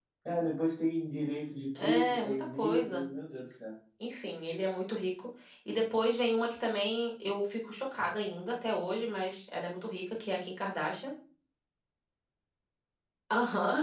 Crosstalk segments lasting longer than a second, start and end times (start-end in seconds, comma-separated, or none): 1.8-3.0